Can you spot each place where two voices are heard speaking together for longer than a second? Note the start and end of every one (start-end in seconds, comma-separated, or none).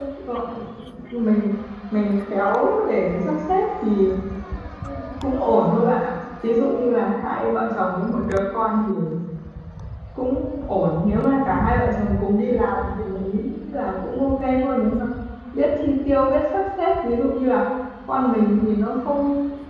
none